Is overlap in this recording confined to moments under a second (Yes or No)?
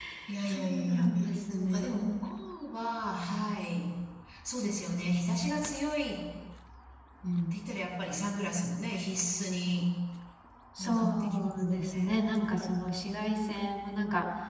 No